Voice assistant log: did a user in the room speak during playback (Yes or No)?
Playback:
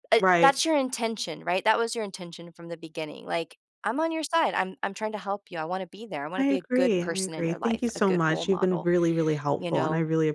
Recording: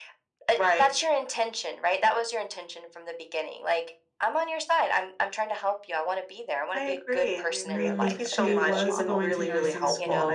Yes